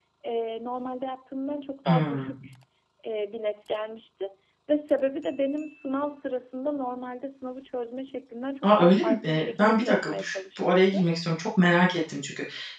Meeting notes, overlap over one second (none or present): present